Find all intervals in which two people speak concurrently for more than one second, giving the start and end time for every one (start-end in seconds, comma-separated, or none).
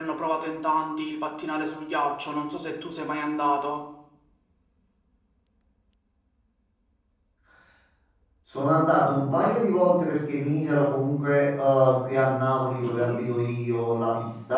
none